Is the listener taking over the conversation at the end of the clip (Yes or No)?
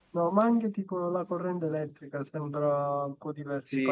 Yes